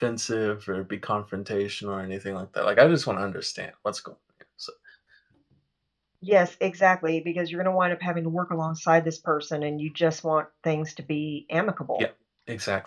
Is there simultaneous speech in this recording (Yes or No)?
No